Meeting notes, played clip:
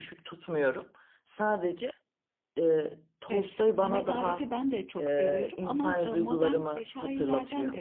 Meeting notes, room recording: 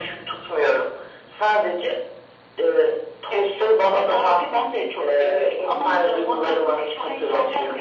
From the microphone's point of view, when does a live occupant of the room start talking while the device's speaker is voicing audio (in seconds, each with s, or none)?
none